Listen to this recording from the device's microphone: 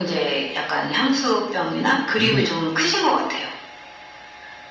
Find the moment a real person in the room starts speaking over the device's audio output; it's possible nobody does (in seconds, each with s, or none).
2.1 s